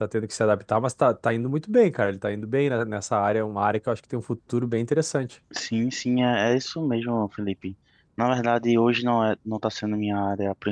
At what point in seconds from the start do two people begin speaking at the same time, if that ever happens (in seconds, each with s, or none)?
none